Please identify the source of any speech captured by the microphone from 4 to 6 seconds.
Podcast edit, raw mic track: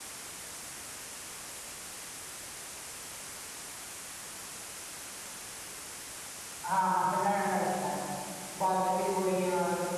neither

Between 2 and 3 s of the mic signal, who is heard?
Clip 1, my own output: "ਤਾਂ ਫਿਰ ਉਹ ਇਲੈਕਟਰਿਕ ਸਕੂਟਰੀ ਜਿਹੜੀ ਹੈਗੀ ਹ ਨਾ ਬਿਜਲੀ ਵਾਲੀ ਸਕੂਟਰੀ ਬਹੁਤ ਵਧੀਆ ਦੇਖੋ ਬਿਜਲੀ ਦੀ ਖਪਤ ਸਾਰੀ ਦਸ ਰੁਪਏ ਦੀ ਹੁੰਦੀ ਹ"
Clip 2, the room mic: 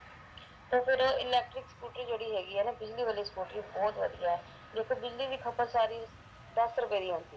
echo only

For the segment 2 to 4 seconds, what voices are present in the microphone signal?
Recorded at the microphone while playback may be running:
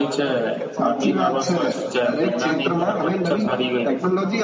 both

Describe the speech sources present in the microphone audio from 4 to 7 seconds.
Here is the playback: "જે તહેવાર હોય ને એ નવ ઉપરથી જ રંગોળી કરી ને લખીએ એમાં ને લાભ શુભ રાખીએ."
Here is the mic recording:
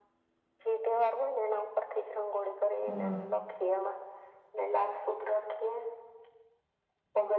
echo only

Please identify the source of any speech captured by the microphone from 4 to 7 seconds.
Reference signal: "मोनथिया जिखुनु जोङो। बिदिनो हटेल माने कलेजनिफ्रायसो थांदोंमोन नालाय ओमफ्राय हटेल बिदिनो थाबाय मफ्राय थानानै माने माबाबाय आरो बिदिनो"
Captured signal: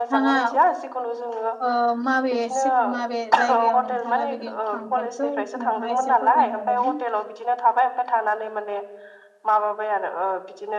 both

